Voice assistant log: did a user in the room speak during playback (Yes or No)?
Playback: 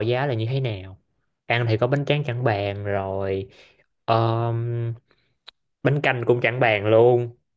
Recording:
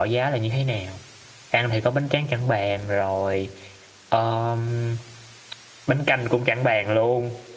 No